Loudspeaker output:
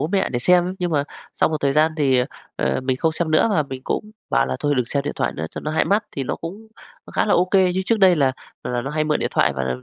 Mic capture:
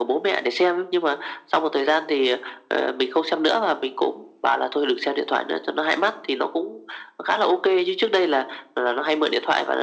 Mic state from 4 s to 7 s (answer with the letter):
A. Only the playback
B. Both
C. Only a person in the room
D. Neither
A